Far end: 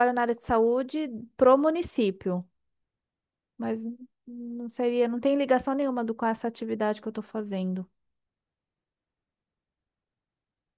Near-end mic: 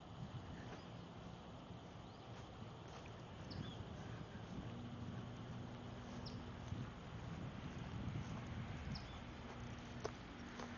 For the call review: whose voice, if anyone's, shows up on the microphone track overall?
neither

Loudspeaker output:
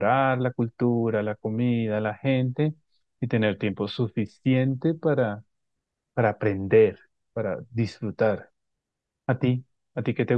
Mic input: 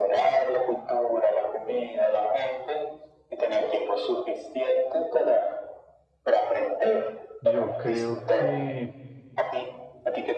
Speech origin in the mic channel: both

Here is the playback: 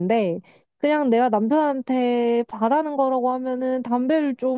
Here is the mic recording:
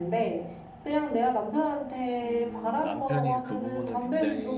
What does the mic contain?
both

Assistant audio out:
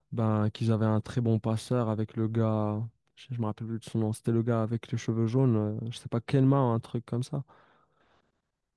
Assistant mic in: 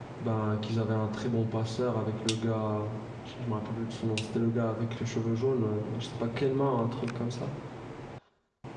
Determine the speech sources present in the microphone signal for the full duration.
echo only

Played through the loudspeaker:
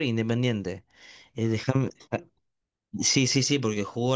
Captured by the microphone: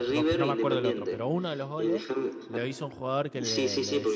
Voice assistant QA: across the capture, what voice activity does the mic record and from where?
both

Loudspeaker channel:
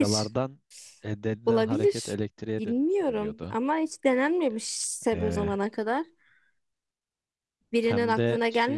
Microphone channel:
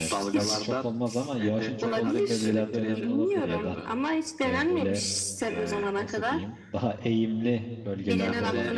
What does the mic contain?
both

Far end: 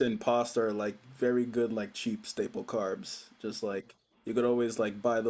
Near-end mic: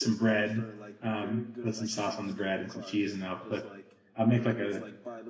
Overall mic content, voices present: both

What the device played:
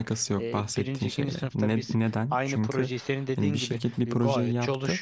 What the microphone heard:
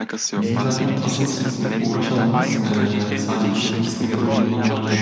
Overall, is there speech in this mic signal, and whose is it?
both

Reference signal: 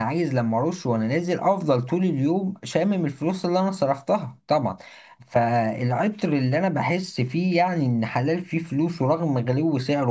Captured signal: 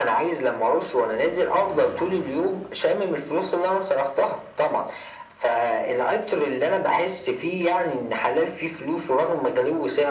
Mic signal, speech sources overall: echo only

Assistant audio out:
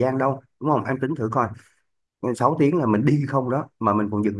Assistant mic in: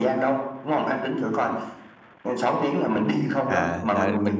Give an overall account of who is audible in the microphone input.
both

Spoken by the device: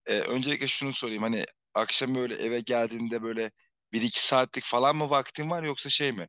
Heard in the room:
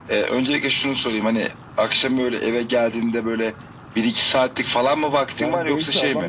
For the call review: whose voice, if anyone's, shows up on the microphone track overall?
both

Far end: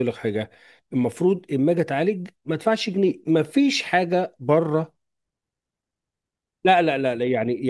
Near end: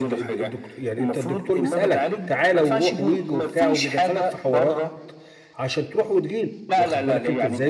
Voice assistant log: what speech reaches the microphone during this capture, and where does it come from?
both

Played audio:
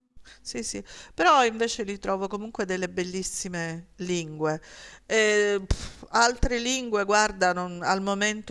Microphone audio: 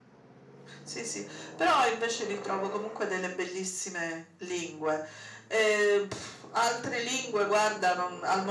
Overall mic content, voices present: echo only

